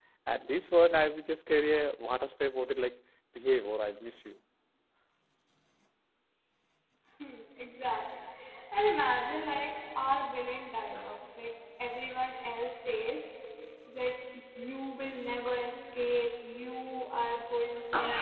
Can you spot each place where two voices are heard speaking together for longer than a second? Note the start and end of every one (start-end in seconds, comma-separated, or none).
none